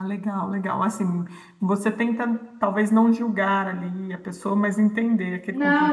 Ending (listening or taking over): taking over